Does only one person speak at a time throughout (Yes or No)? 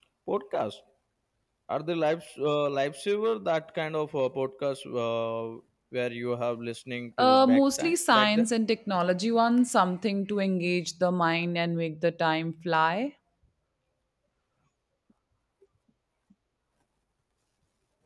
No